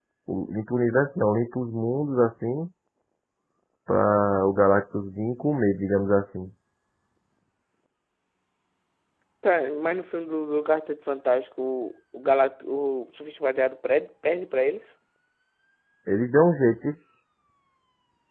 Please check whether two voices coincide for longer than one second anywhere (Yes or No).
No